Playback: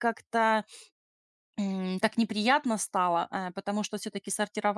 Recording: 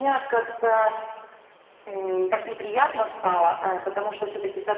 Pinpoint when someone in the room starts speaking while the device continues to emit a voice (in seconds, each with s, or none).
none